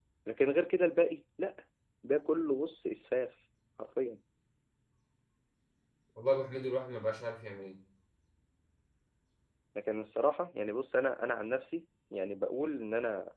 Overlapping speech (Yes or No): No